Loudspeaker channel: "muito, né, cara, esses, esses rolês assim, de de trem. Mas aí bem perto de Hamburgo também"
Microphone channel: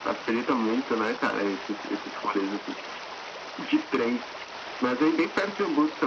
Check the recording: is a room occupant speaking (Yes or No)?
No